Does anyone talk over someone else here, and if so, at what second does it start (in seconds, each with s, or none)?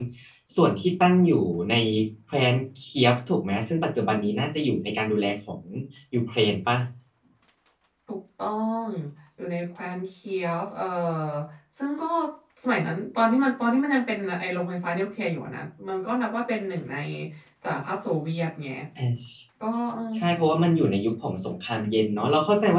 none